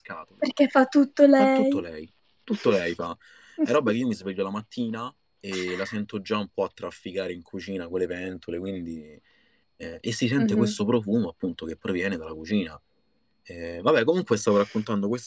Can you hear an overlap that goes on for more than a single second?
No

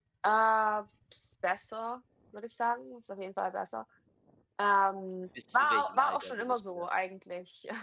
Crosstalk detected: Yes, from 5.5 s

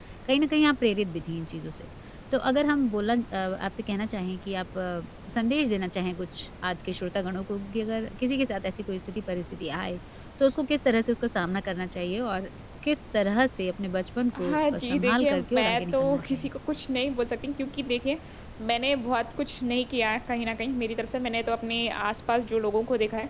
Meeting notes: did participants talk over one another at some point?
Yes, from 14.4 s

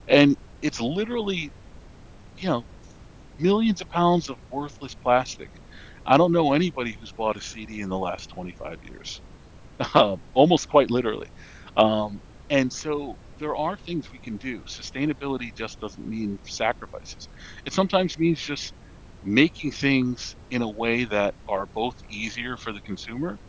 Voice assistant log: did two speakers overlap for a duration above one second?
No

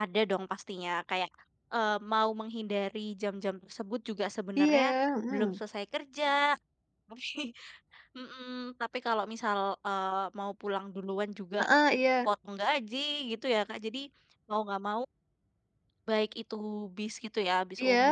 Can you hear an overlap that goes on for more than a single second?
No

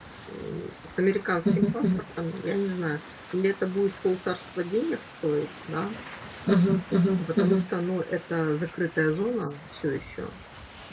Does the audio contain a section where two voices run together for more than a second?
No

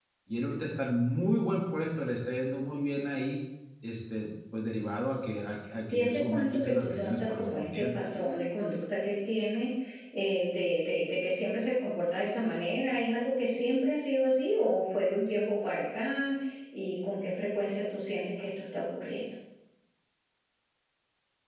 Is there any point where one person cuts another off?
Yes, from 5.9 s

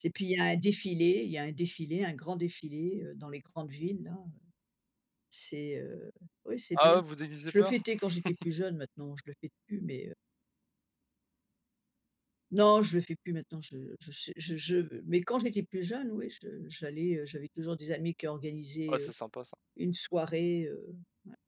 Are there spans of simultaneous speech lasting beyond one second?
No

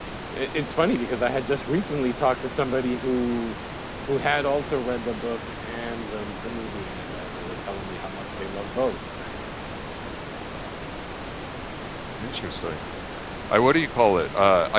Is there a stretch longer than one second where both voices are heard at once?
No

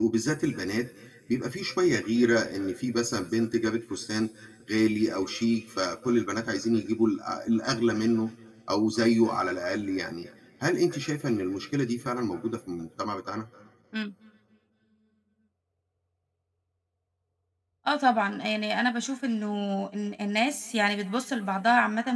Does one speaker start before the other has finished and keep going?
No

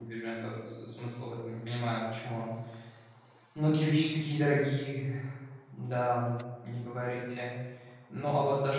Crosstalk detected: No

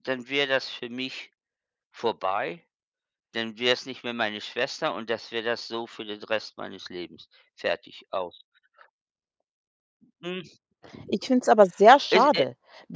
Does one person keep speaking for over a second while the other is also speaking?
No

